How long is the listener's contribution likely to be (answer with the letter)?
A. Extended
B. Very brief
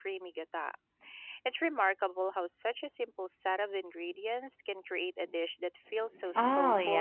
A